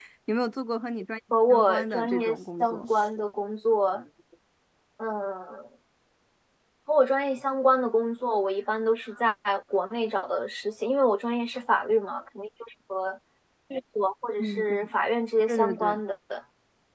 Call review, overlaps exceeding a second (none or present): present